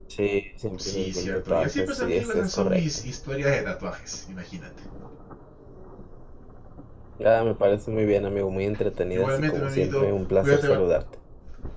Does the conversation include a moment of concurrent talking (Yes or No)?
Yes